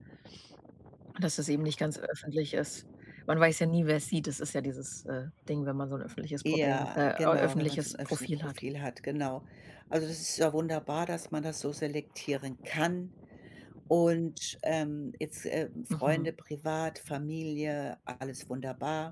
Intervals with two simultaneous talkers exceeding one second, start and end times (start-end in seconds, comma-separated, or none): 6.5-8.6